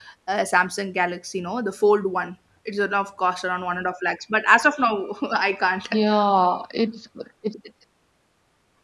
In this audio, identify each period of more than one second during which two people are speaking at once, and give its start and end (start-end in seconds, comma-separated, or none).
none